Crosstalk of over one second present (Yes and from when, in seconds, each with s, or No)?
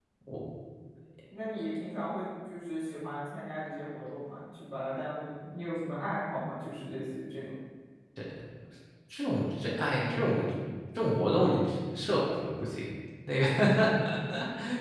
No